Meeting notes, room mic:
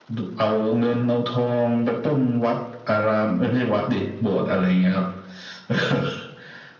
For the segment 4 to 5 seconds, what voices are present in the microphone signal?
echo only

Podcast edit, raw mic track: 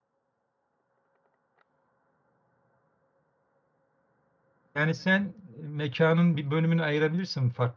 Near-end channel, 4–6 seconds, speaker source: user only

